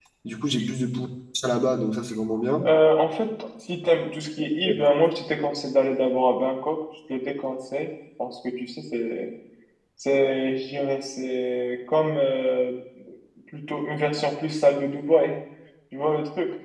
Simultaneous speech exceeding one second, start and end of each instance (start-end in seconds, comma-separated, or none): none